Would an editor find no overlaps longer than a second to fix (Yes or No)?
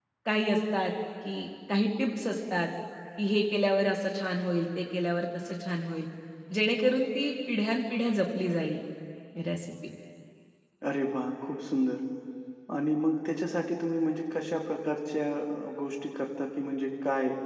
Yes